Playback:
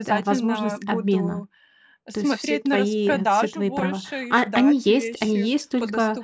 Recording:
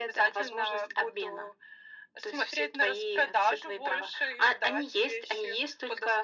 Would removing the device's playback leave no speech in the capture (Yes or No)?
Yes